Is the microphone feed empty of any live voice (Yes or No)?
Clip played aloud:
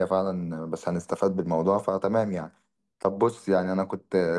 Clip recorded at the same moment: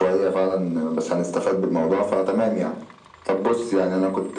Yes